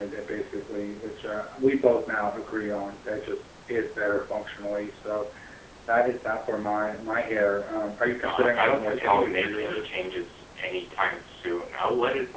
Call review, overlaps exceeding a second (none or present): present